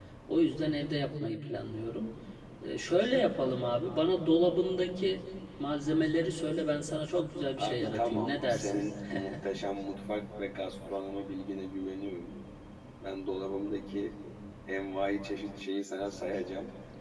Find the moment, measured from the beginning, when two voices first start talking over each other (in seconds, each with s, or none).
7.6 s